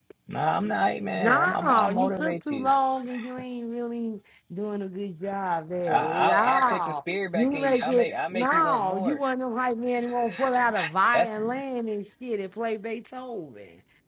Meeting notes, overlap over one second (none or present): present